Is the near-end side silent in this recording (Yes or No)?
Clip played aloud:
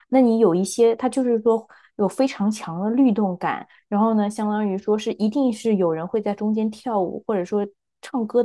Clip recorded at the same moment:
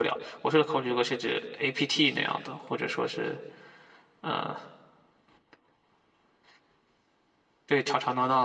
No